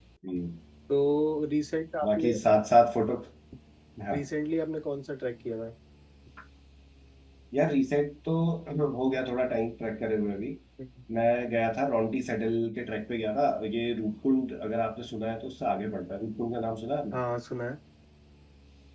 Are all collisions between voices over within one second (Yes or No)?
Yes